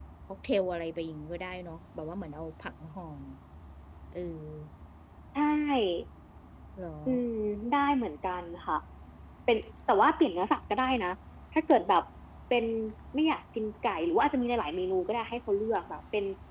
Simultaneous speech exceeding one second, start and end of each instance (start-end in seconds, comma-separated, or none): none